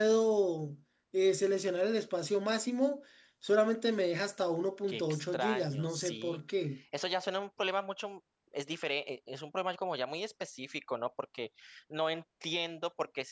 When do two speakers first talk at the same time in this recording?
5 s

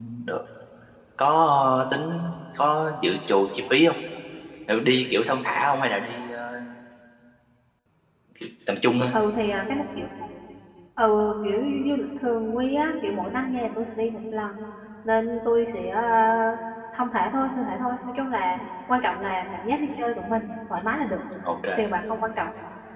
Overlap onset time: none

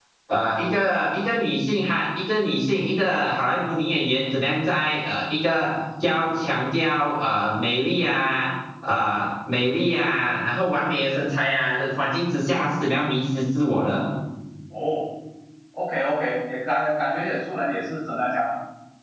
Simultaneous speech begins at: none

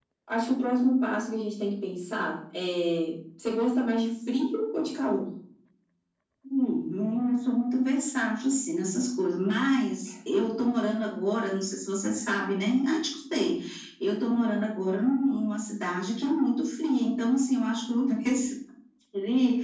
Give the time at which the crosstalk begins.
none

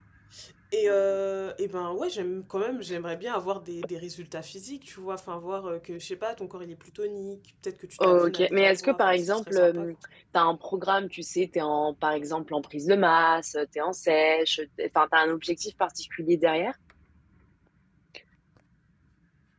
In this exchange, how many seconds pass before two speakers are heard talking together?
8 s

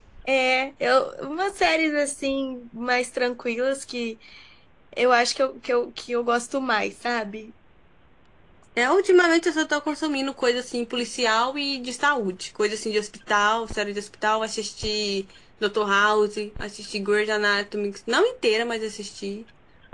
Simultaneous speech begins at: none

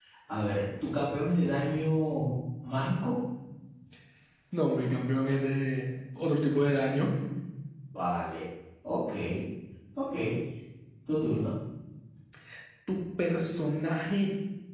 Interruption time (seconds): none

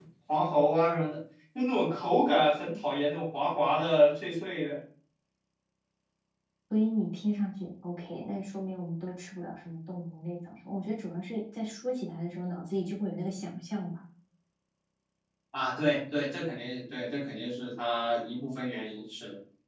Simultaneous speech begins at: none

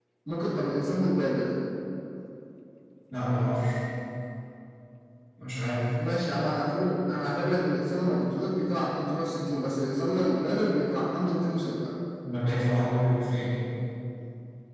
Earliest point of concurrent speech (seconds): none

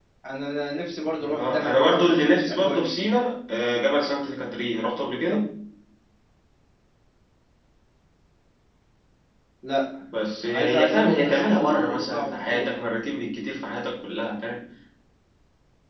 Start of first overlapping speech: 1 s

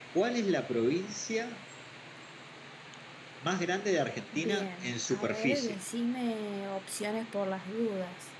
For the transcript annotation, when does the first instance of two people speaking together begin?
4 s

